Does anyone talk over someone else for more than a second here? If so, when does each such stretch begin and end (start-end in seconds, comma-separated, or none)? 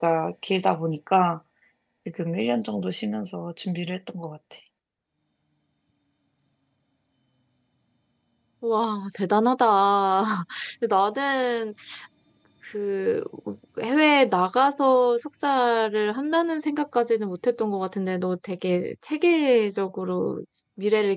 none